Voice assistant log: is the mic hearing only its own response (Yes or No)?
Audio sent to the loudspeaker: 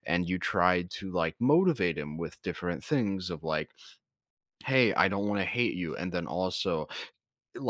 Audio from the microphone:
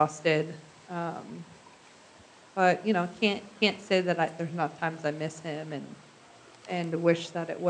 No